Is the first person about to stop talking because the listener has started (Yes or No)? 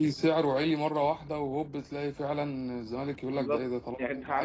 Yes